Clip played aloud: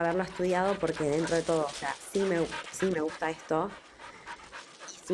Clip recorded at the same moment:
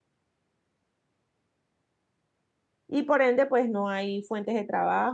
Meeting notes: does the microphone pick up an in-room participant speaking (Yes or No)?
Yes